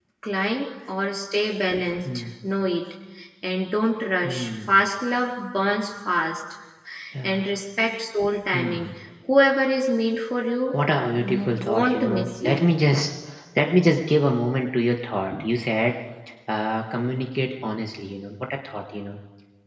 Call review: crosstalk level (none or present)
present